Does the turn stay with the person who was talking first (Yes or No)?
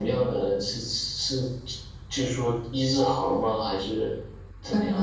No